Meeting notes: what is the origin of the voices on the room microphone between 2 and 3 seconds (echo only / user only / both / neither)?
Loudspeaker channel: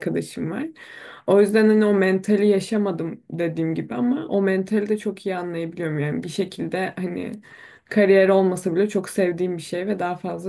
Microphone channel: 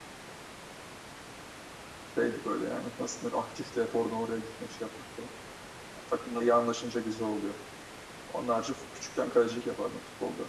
user only